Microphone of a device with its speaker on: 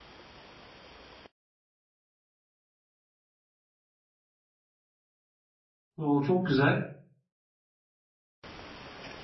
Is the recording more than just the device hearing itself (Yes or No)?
Yes